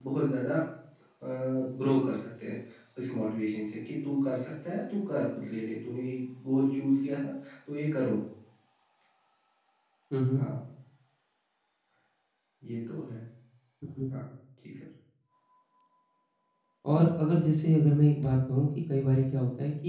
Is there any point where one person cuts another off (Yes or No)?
No